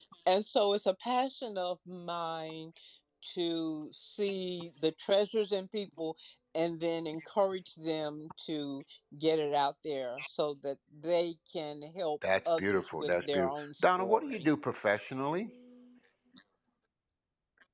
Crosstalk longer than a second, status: present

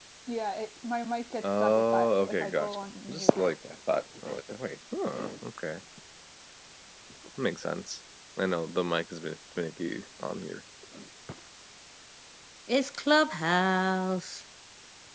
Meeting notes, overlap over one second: present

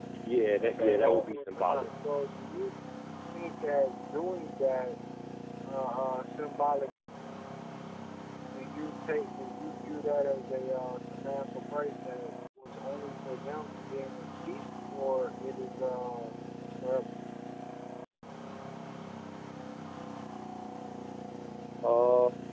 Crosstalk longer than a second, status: present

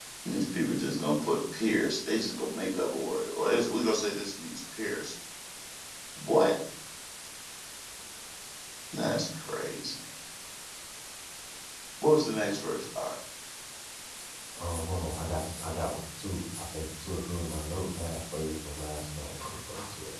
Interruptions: none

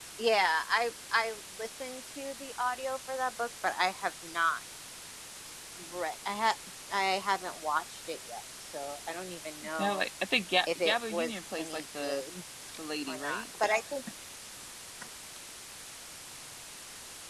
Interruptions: present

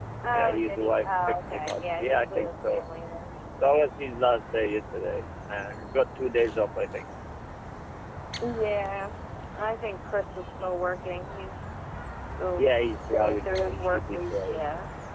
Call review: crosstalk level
present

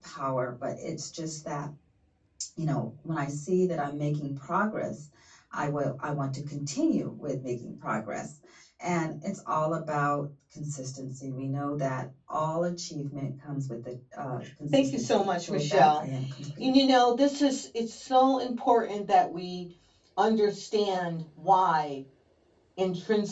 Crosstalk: present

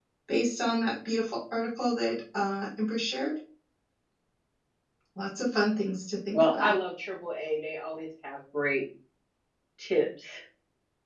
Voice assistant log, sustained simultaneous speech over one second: none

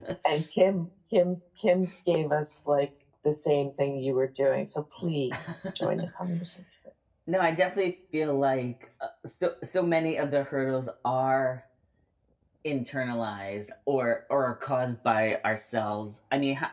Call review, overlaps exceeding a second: none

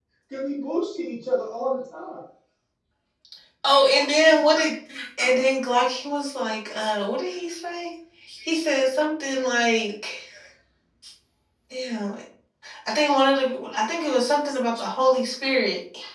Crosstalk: none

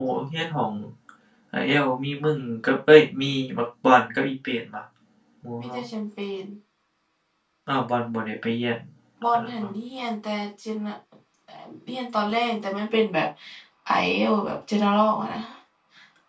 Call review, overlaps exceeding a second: none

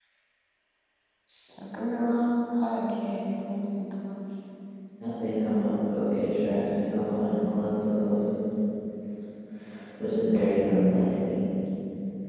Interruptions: none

